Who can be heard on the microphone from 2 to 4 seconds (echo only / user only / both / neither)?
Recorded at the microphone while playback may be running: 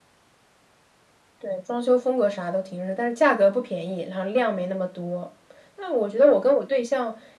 echo only